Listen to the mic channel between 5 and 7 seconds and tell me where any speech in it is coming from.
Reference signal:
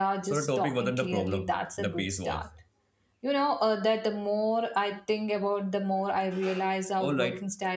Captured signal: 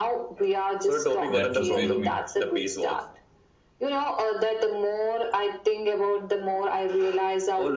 echo only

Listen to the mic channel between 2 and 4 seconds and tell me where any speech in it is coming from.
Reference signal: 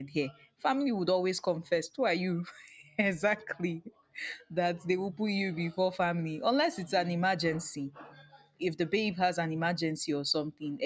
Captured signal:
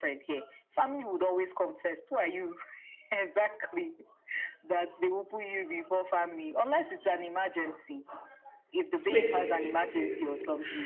echo only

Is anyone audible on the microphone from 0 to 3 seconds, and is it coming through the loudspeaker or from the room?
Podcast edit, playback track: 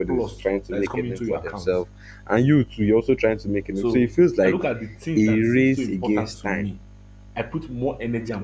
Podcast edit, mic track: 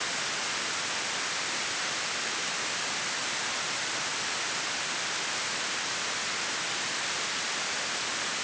neither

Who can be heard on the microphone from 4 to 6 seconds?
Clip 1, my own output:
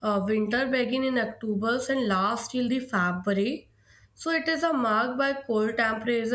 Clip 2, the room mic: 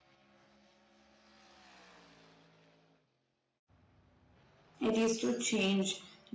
user only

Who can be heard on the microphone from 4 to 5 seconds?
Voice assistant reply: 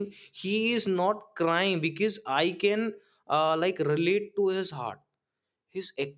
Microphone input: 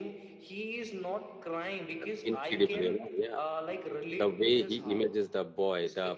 both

